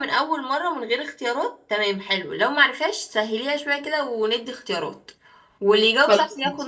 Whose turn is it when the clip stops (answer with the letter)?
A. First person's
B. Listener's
A